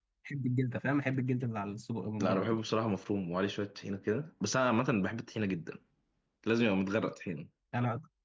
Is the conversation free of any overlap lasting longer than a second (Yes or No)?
Yes